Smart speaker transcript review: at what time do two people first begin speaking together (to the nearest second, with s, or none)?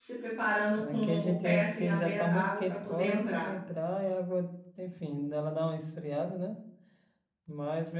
1 s